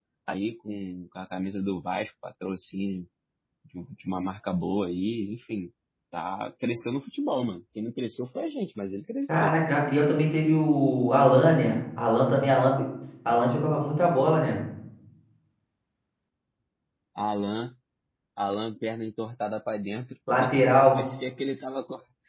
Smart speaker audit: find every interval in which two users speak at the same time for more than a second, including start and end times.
none

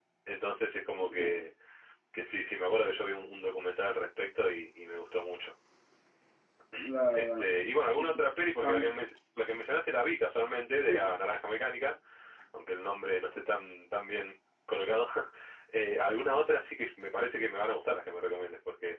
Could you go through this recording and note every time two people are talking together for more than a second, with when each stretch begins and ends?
none

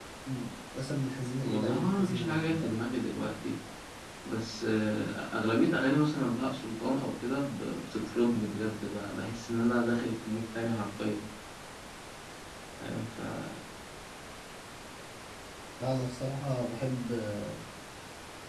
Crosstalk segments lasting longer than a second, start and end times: 1.4-2.7

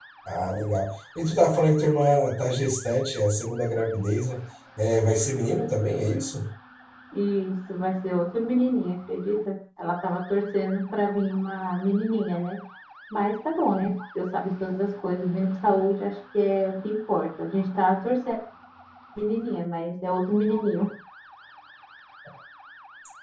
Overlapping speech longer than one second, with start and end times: none

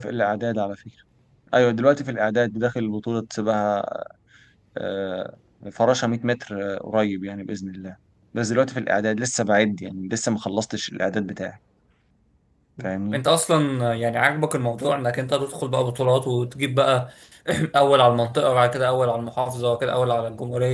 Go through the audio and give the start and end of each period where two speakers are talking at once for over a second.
none

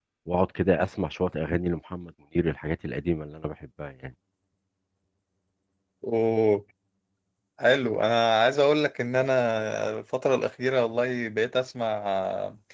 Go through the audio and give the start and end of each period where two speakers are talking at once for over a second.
none

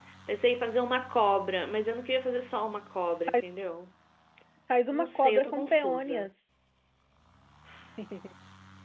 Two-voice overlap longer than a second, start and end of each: 4.9-6.3

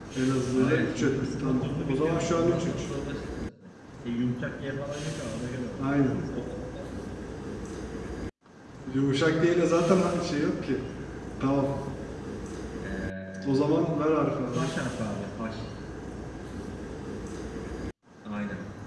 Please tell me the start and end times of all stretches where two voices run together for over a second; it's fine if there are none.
0.5-2.9

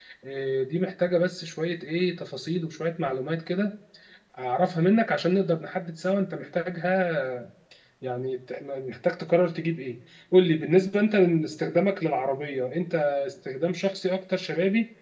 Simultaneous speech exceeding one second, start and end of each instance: none

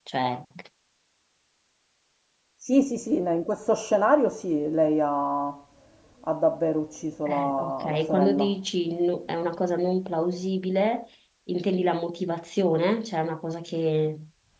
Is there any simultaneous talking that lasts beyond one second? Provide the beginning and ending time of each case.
7.3-8.5

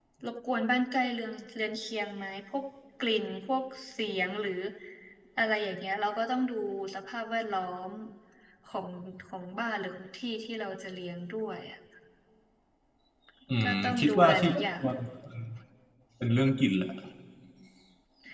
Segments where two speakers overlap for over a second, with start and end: 13.6-14.8

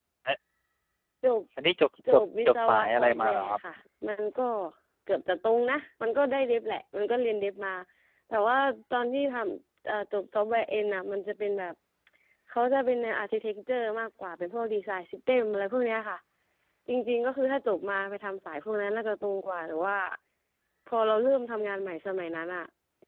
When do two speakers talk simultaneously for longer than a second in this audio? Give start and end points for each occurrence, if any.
2.1-3.6

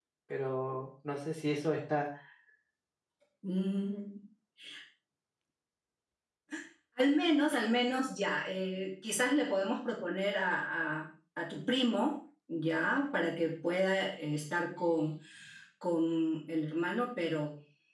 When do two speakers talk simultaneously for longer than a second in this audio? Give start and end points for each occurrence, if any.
none

